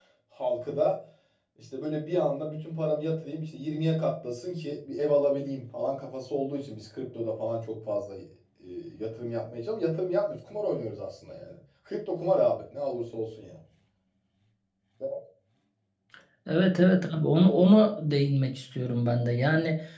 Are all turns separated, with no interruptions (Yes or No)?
Yes